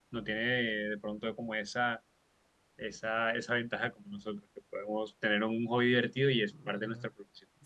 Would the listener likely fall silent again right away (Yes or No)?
No